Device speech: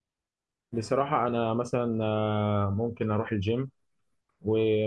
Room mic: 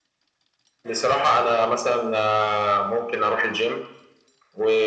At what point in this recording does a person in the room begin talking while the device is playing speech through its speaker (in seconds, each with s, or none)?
none